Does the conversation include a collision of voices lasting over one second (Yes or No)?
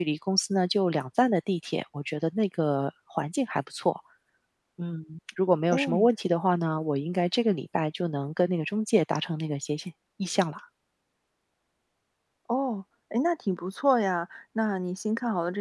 No